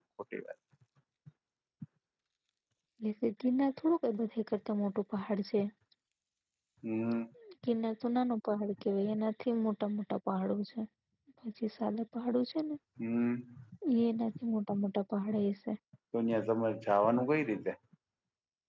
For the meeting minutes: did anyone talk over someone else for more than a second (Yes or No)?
No